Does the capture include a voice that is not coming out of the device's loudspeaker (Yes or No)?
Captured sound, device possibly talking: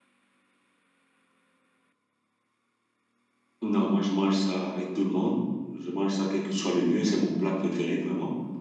Yes